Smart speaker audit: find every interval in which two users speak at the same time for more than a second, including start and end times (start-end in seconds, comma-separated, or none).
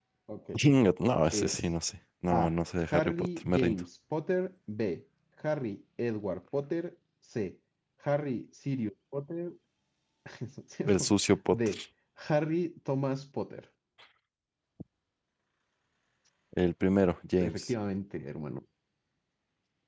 2.3-3.8